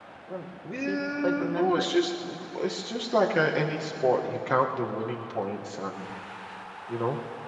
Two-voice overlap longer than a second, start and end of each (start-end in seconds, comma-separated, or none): 0.8-2.1